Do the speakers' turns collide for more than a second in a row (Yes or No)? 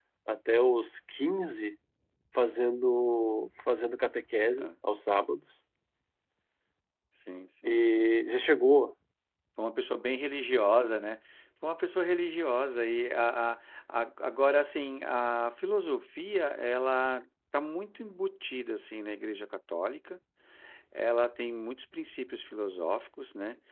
No